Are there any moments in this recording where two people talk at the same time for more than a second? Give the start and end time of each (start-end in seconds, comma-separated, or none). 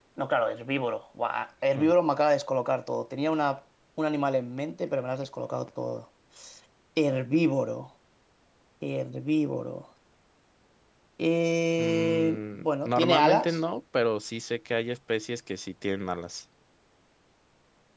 11.8-13.6